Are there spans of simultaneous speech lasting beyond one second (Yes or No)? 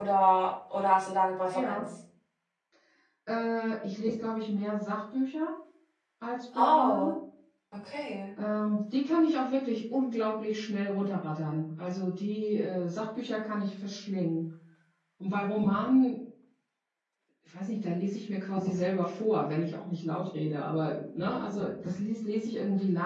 No